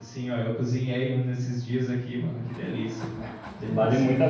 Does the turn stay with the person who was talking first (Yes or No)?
No